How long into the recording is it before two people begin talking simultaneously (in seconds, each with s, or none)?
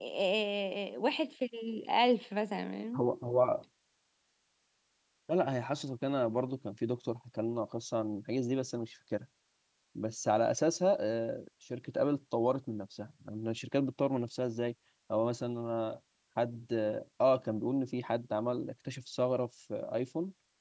none